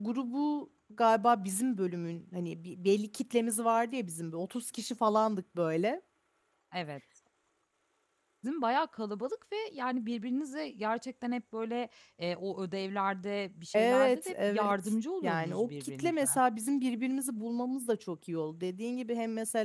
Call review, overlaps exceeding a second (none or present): present